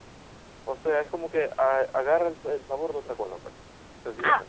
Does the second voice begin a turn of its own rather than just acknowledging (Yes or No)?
Yes